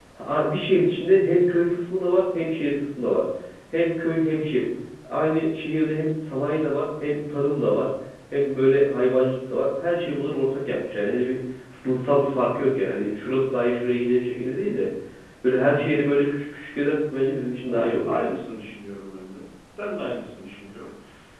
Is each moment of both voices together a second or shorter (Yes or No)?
Yes